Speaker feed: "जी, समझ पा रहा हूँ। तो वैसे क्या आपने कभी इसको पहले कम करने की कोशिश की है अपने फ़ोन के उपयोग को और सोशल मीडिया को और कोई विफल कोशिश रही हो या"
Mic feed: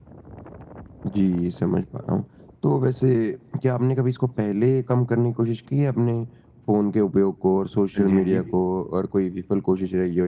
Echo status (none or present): present